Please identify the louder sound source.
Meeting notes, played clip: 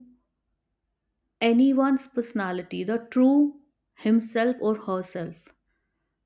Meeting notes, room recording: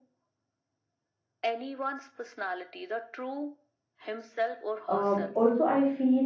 user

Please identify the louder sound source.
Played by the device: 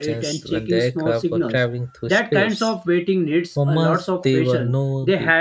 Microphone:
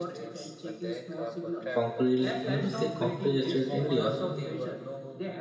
user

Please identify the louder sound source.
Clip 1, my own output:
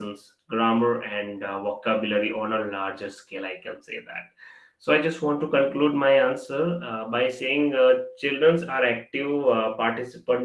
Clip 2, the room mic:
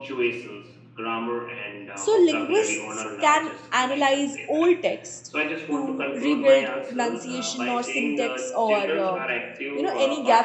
user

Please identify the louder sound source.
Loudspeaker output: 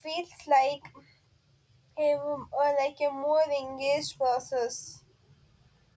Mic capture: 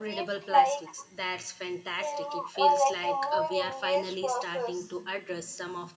echo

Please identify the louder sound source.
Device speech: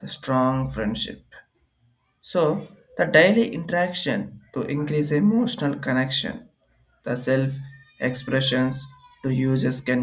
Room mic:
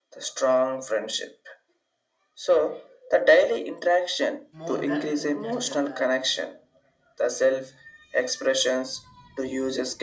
echo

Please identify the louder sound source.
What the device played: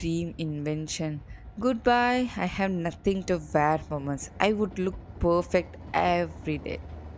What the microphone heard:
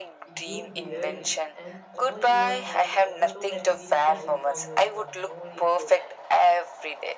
echo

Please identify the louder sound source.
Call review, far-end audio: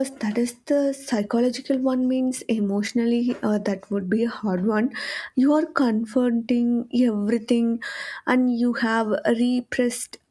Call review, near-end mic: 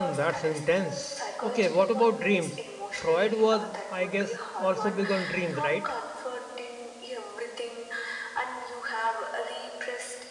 user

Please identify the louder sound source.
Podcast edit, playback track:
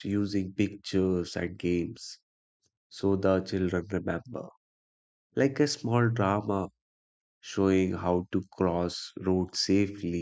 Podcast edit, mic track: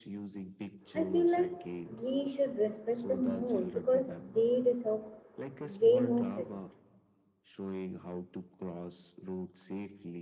user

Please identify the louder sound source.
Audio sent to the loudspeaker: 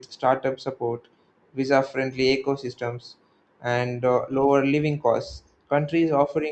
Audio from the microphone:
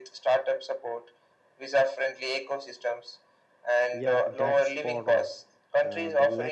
echo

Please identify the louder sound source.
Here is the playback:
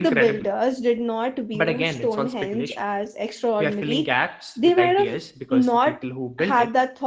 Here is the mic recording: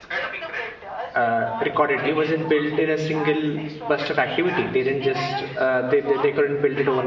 user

